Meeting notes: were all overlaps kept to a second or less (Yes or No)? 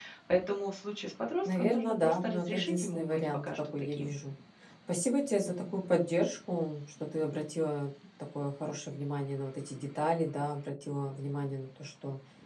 No